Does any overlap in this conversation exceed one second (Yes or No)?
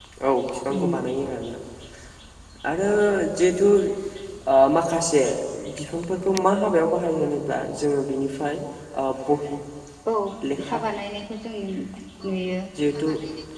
No